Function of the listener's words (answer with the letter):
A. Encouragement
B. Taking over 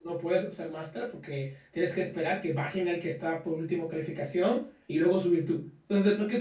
A